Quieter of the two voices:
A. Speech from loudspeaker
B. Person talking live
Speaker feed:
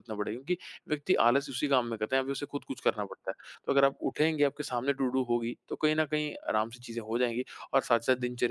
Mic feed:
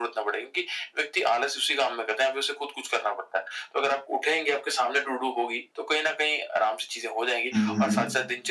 A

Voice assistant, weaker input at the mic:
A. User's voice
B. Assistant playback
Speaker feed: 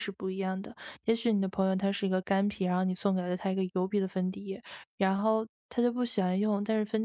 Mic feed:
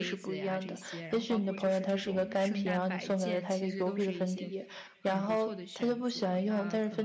A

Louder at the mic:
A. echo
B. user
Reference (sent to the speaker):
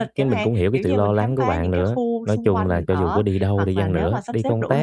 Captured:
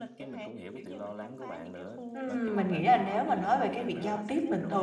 B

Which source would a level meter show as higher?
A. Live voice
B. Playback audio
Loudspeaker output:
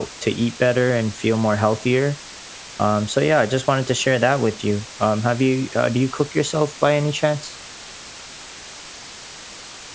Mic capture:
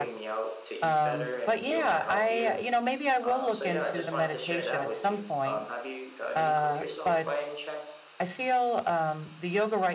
A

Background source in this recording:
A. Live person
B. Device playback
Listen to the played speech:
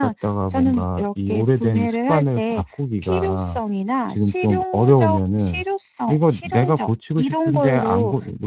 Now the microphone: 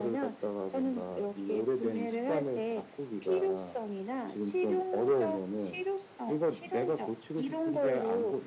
A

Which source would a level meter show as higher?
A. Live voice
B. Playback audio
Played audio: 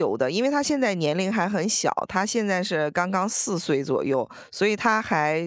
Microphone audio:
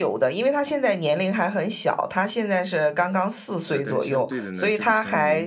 B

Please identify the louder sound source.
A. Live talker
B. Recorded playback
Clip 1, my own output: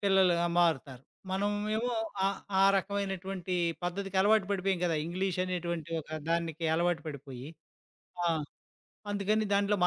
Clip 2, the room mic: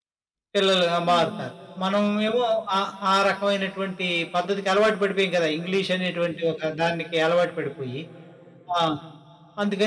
B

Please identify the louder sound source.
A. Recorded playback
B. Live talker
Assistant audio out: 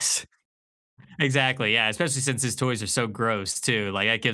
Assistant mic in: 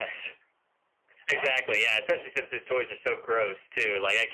A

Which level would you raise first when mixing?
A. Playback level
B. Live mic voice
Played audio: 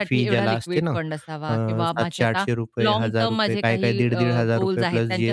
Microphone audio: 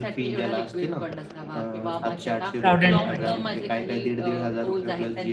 A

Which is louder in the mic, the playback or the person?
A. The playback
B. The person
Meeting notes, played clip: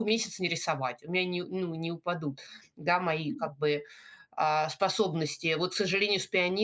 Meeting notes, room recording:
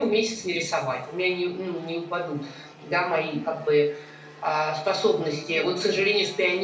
A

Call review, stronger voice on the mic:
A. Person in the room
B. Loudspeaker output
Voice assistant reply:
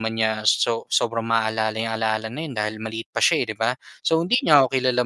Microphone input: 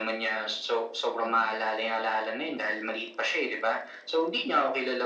B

